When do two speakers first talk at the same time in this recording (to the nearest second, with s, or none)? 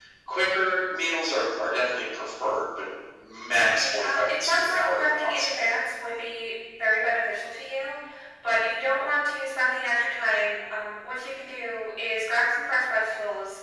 4 s